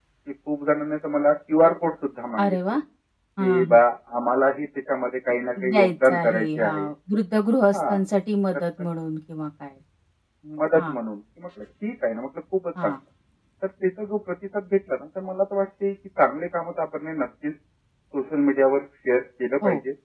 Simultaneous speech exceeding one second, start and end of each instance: 5.6-6.9

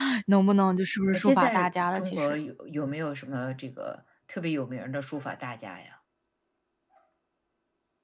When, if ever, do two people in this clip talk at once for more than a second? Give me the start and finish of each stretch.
1.1-2.4

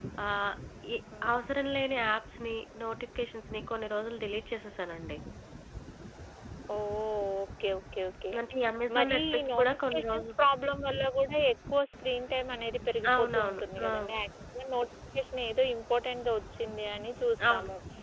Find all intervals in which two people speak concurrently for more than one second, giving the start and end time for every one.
9.0-10.2

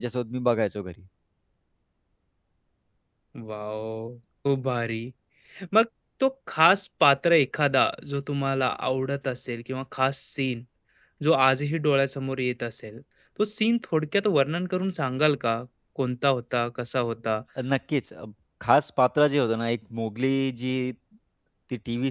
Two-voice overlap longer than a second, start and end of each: none

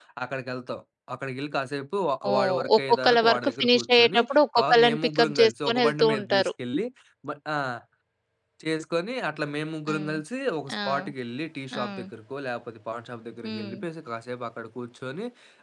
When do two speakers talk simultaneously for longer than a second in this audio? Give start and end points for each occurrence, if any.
2.3-4.2, 4.6-6.5

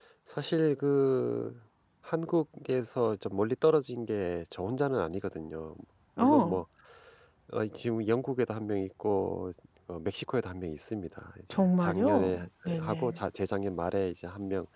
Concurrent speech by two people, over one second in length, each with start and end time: 11.5-13.2

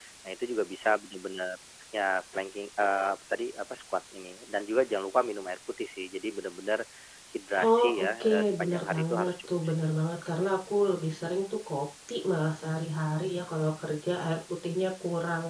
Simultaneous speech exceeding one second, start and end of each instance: 7.7-9.9

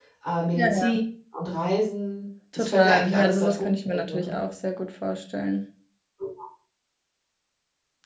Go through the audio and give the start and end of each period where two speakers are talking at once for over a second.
2.5-4.3

